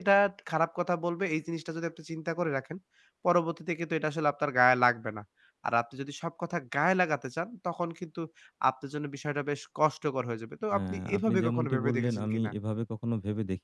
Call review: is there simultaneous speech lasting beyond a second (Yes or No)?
Yes